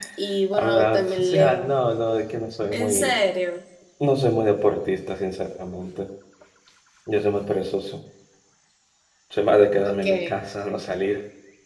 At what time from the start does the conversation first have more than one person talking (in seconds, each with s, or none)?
0.5 s